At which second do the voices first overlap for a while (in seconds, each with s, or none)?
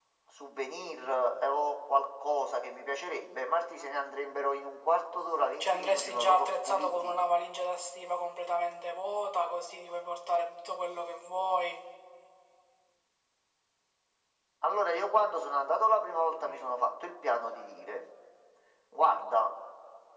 5.6 s